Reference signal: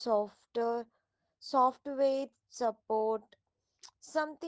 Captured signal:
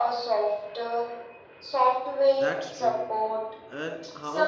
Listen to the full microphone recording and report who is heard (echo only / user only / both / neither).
both